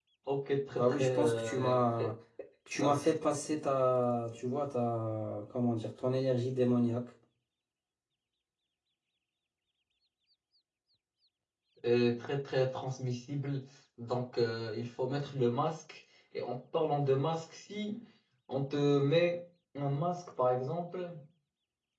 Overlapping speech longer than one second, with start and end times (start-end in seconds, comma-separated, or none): 0.7-2.0